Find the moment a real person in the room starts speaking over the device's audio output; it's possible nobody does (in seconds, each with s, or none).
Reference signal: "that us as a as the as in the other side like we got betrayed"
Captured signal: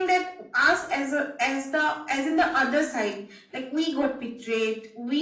none